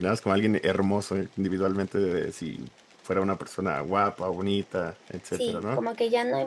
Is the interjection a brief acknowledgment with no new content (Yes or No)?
No